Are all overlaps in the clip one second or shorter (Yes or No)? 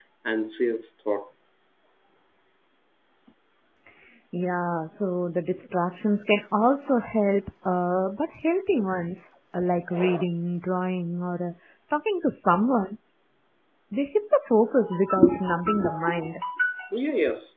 Yes